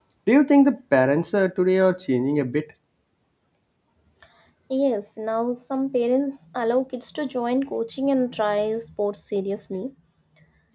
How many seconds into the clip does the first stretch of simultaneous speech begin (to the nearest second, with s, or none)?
none